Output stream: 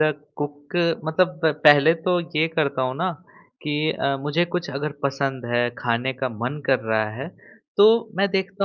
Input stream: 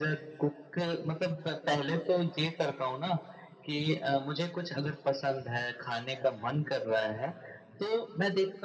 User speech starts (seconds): none

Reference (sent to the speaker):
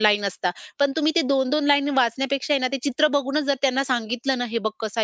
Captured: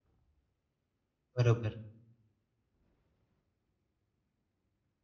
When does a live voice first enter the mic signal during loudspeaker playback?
1.4 s

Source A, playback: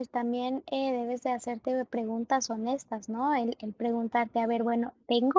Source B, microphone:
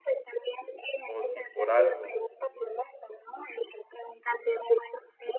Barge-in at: 1.0 s

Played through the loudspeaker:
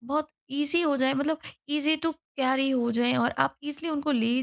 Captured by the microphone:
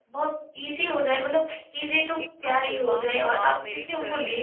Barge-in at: 2.2 s

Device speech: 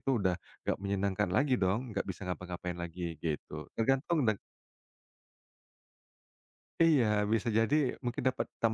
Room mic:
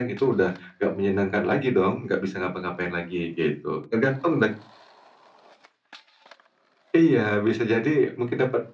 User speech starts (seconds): none

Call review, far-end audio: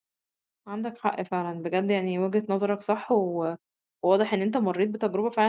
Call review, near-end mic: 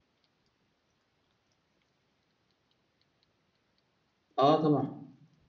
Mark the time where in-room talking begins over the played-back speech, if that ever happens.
4.4 s

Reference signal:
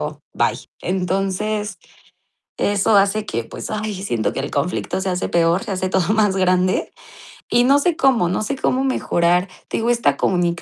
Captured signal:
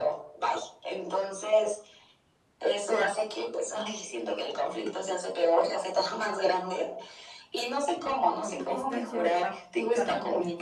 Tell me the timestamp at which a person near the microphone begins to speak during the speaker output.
8.4 s

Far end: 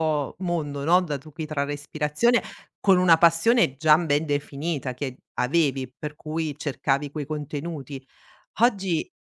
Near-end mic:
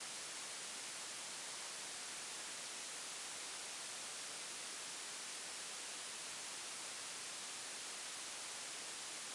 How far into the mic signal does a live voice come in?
none

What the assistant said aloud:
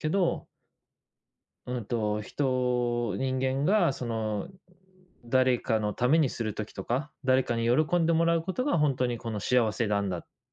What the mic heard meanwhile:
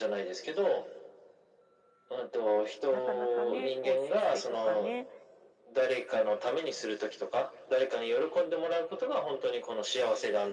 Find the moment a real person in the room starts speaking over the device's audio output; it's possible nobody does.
2.9 s

